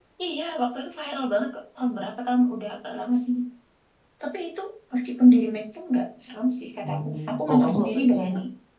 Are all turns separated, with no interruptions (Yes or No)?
No